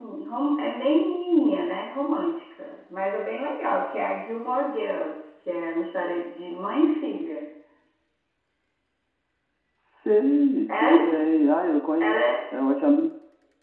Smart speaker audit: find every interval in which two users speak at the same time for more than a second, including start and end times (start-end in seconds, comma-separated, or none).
none